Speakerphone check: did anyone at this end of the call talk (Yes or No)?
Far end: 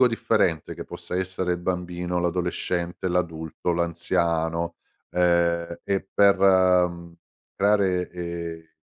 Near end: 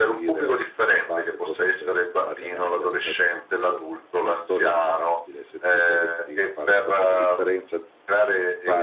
Yes